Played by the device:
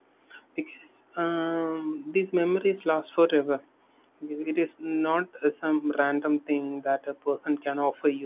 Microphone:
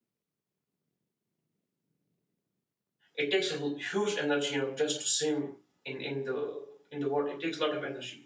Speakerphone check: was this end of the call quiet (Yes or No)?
No